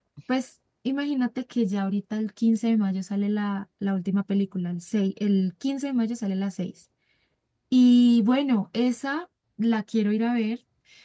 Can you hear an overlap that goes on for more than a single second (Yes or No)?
No